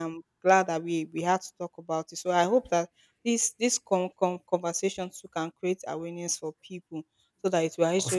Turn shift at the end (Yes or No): No